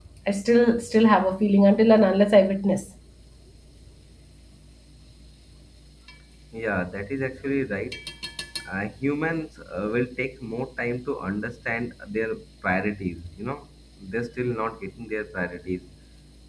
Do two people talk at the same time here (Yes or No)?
No